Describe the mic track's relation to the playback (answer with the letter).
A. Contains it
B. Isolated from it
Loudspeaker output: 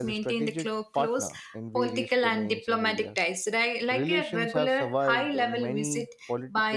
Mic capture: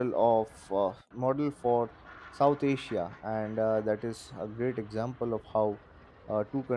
B